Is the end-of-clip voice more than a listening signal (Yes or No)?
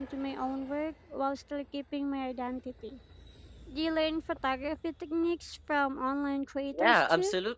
Yes